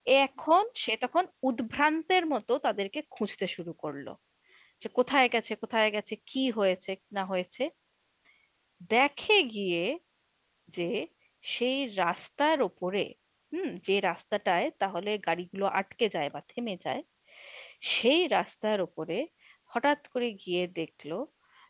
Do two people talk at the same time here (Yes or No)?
No